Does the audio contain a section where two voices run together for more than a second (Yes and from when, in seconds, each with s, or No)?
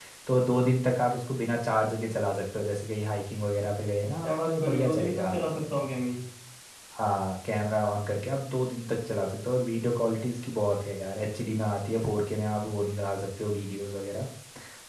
Yes, from 4.2 s